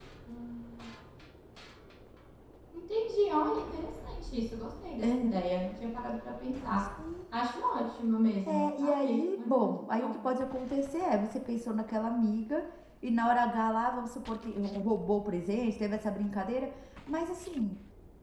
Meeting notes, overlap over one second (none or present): present